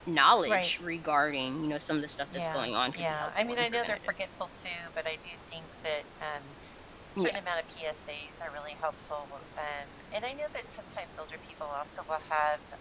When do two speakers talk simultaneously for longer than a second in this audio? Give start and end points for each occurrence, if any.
2.3-4.0

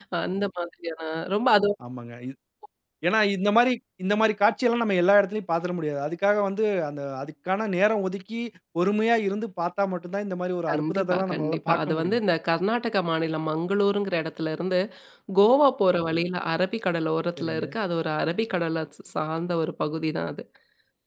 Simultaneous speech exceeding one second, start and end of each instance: 10.7-12.2

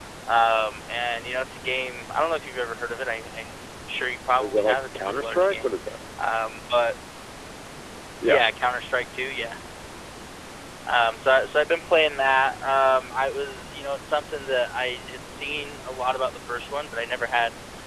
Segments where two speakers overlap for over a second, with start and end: 4.4-5.7

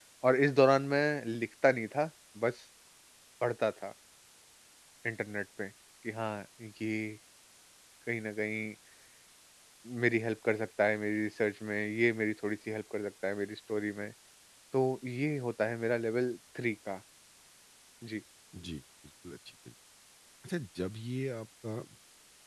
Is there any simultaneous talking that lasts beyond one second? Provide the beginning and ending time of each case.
none

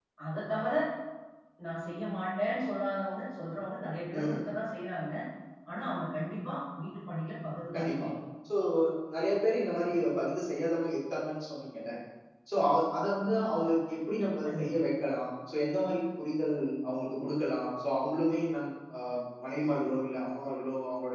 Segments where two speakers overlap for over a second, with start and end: none

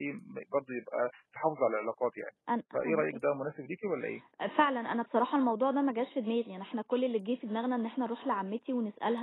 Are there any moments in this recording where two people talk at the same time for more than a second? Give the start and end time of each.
none

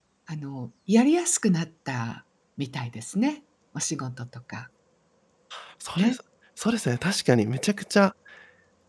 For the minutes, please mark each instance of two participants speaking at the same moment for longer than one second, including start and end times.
none

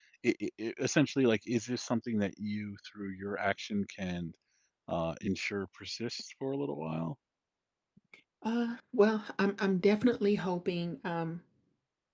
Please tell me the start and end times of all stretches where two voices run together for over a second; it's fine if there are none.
none

